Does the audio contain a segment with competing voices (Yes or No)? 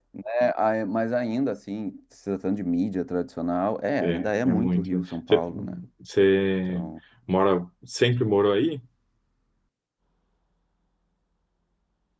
Yes